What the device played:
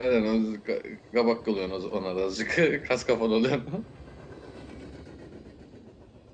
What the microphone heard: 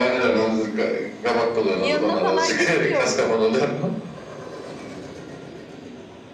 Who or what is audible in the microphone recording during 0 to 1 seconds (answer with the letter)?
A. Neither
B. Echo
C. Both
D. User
B